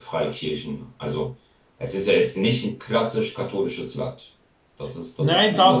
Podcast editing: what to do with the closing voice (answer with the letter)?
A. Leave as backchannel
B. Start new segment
B